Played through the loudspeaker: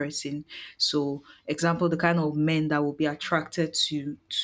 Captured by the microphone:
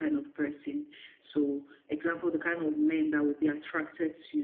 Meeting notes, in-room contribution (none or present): none